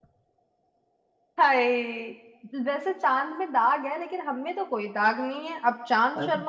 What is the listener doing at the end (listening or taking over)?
listening